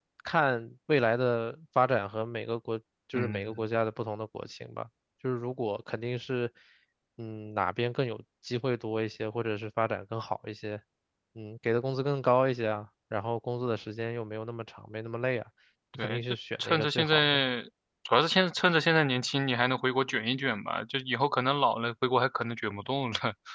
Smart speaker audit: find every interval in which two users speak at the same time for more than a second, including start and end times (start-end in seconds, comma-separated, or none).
16.0-17.4